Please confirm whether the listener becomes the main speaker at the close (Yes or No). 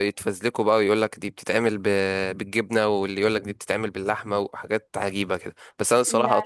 No